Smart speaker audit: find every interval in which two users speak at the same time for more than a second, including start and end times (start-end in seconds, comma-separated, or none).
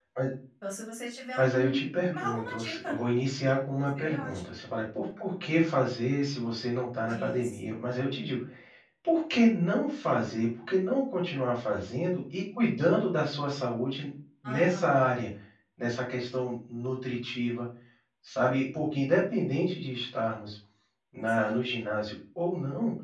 1.4-3.0